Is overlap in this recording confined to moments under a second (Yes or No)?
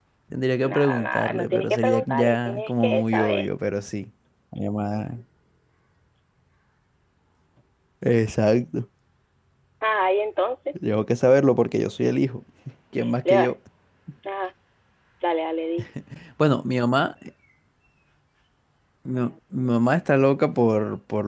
No